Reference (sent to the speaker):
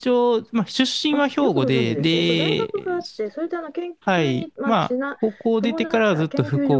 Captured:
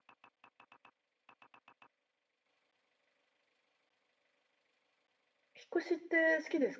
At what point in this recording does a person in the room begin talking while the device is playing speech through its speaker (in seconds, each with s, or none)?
5.5 s